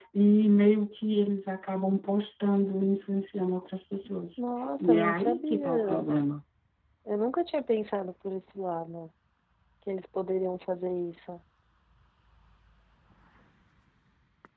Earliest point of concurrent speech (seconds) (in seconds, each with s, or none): 4.8 s